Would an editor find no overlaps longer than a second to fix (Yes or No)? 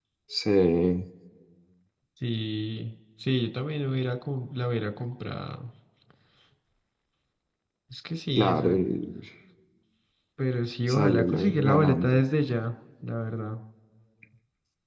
No